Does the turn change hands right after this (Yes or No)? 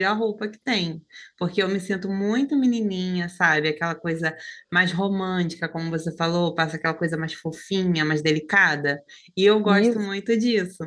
No